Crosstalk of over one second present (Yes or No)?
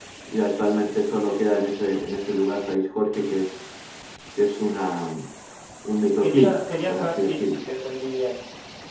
Yes